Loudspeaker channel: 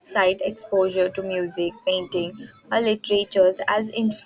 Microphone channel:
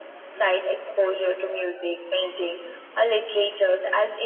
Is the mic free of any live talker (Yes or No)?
Yes